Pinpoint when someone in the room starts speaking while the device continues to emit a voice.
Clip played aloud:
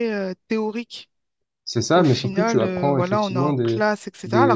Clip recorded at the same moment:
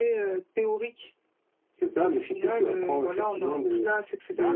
none

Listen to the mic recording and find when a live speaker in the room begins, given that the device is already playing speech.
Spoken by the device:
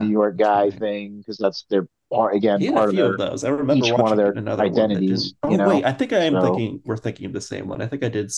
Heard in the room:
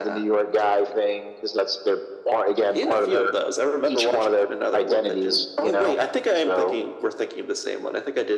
none

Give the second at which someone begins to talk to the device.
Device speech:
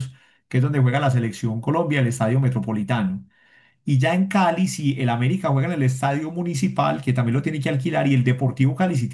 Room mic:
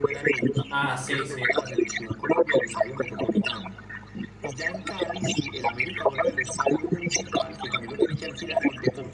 0.7 s

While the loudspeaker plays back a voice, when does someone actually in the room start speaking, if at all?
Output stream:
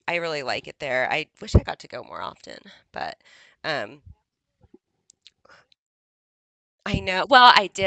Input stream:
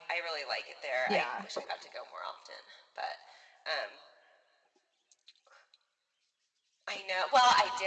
1.0 s

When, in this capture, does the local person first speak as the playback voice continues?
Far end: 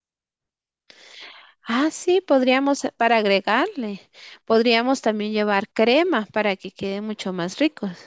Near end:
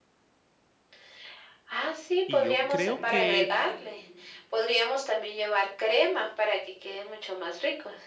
2.2 s

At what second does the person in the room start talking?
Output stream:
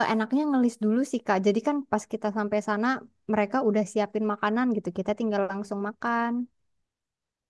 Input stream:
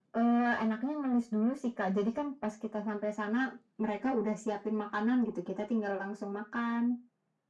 none

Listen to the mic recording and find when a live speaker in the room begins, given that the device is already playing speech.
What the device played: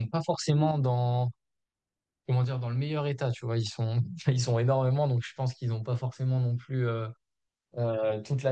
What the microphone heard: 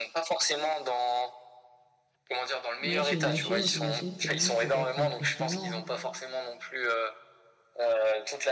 2.8 s

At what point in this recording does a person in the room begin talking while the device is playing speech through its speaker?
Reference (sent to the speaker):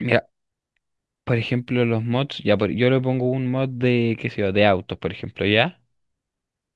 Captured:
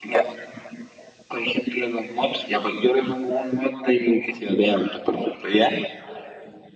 none

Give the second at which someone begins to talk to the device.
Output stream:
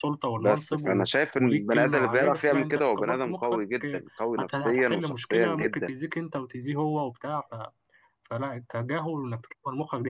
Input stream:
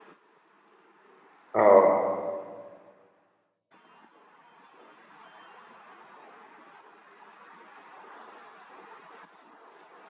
1.5 s

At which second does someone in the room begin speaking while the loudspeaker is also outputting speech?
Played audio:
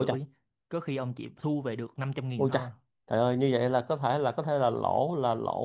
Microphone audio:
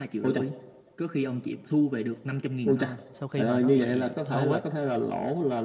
3.1 s

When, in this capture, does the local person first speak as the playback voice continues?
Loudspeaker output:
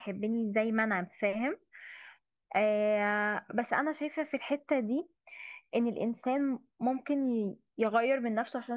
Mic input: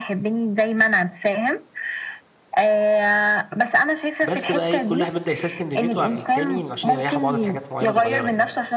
4.2 s

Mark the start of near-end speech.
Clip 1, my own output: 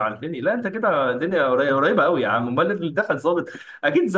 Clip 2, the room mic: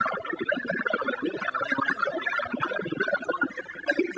none

